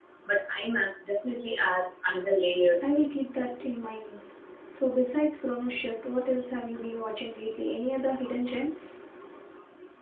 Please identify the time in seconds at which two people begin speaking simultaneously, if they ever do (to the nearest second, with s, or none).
none